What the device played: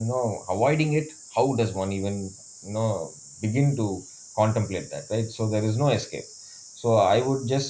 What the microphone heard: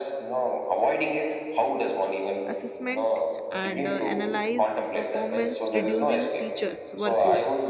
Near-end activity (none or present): present